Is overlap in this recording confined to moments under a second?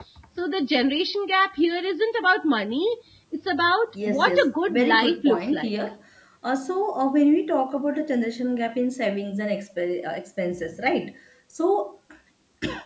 No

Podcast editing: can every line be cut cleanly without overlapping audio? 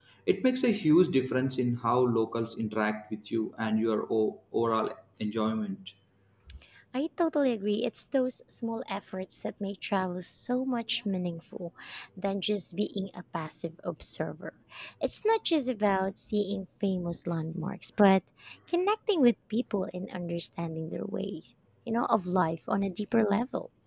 Yes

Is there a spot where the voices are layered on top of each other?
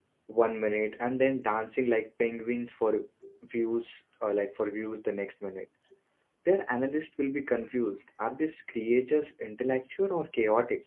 No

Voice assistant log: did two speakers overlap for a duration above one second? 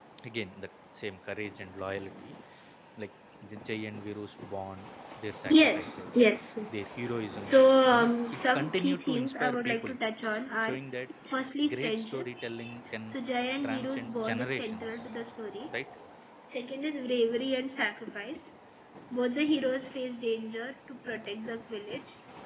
Yes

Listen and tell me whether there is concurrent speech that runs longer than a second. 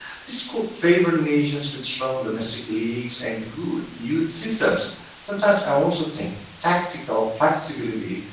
No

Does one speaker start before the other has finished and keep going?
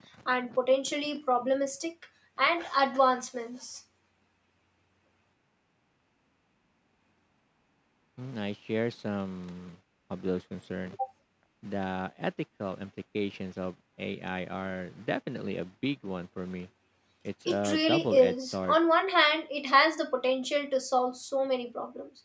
Yes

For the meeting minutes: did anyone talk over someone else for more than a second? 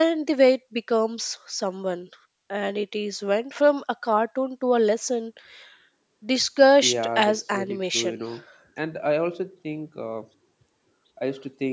Yes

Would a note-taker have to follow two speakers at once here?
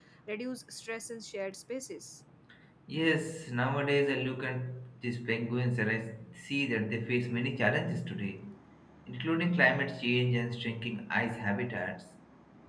No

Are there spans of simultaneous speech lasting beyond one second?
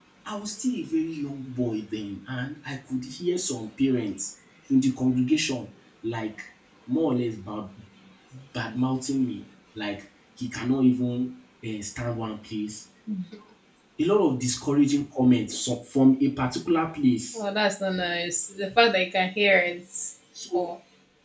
No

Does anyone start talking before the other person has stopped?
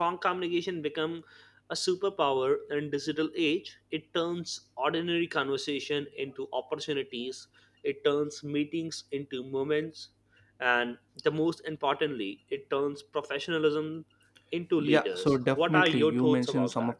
Yes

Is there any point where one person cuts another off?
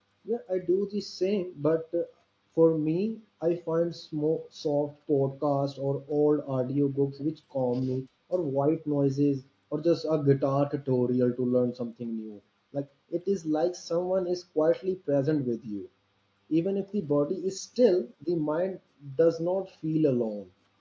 No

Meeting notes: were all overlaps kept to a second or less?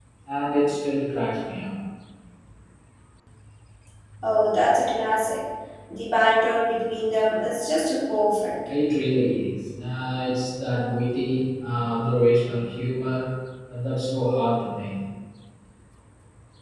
Yes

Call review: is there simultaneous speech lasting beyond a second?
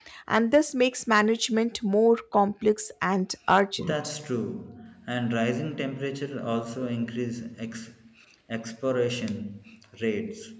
No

